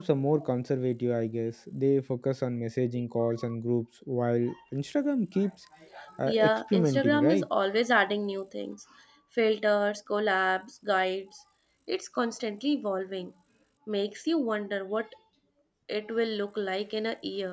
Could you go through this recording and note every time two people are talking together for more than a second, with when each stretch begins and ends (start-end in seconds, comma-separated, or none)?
6.2-7.5